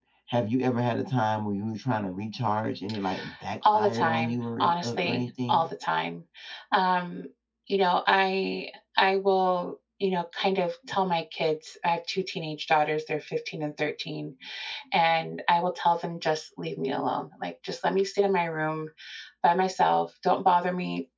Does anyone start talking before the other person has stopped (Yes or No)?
Yes